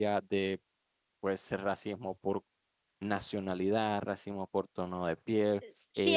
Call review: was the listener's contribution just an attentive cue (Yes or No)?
No